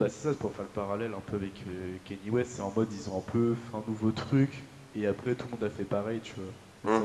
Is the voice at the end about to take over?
Yes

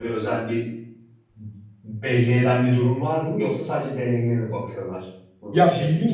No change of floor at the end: No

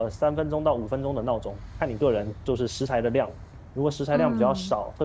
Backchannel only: Yes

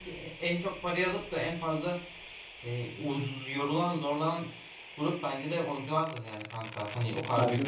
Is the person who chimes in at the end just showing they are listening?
Yes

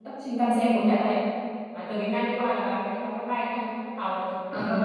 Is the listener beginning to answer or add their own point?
Yes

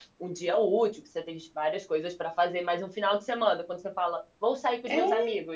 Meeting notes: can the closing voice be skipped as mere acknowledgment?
Yes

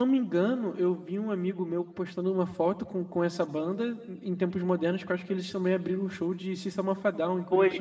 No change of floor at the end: No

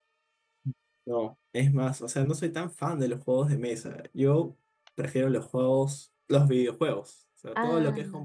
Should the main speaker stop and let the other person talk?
No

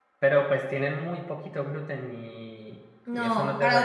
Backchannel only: No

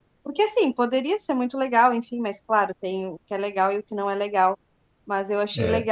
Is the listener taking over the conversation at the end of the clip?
No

